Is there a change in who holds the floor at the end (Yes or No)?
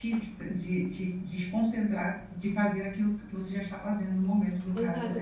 Yes